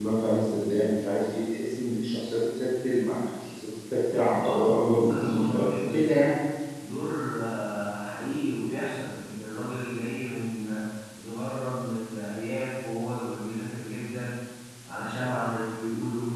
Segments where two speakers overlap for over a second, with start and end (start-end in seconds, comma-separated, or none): 4.3-6.3